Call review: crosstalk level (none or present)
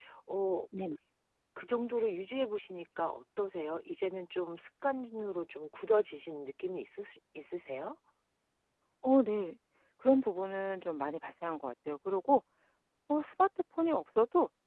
none